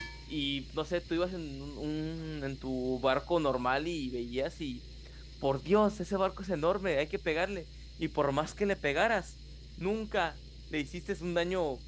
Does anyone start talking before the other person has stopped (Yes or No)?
No